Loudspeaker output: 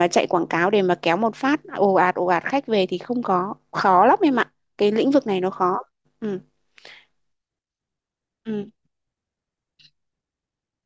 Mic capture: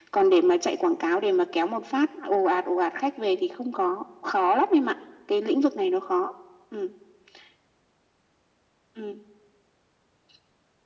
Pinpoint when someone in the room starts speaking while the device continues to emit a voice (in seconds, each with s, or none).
none